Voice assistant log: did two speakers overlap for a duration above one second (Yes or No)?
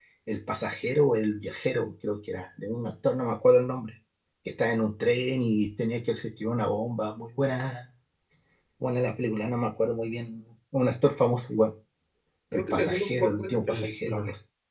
Yes